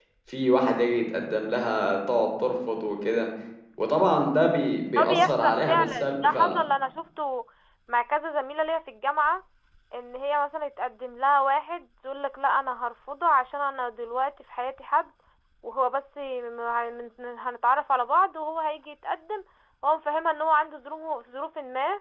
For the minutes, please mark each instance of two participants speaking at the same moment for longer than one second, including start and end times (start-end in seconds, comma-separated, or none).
5.0-6.6